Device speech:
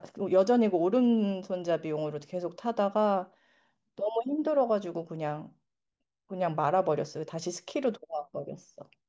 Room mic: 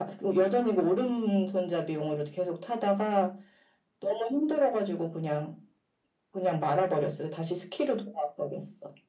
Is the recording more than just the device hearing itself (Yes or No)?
No